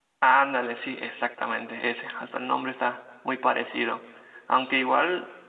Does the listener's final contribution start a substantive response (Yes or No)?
No